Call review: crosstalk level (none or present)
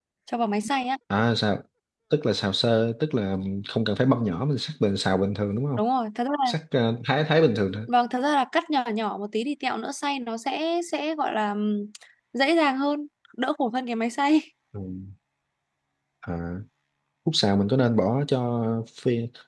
none